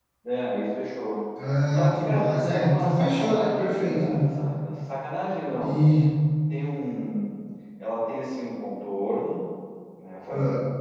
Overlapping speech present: Yes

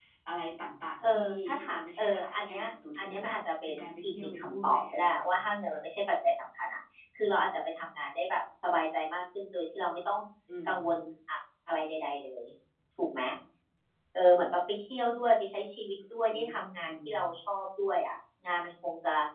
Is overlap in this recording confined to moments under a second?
No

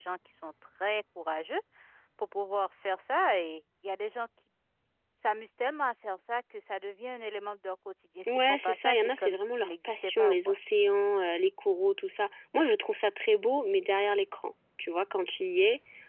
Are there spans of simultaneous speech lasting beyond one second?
Yes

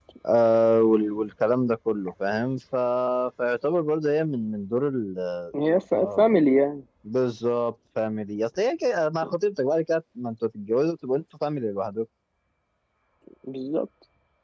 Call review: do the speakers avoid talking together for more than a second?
Yes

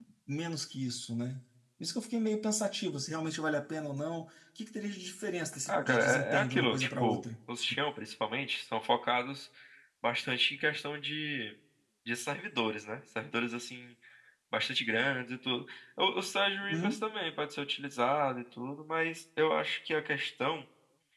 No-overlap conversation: No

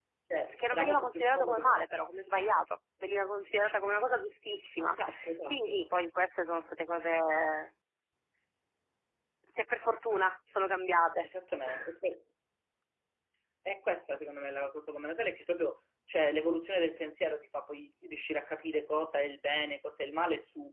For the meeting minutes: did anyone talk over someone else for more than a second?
Yes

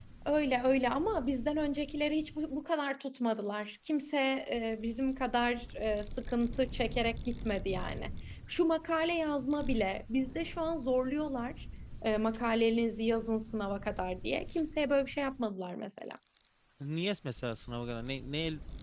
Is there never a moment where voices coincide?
Yes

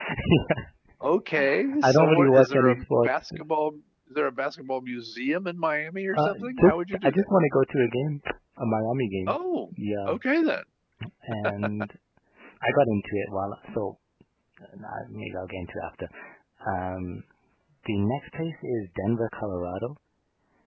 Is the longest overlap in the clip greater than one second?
Yes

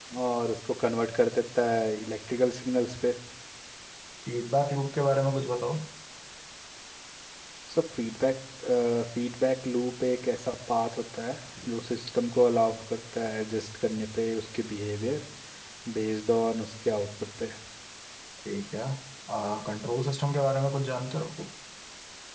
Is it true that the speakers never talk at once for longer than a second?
Yes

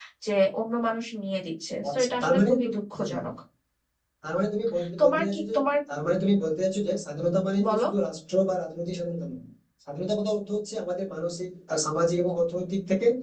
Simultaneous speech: Yes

